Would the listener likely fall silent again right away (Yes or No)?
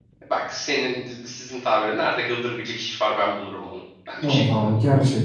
No